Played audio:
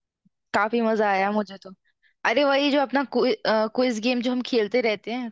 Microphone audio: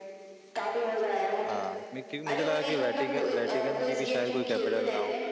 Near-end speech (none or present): present